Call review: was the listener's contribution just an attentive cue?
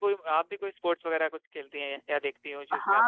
No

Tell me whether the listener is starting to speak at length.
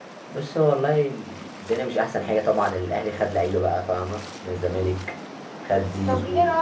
Yes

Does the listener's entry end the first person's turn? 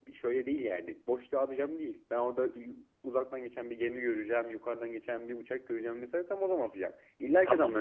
Yes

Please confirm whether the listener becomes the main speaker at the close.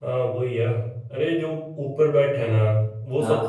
No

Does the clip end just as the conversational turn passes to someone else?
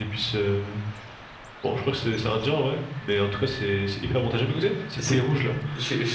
Yes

